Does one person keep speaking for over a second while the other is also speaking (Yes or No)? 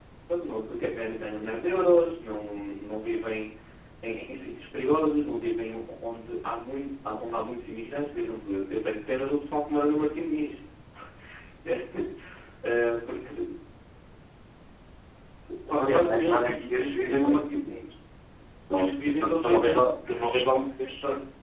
Yes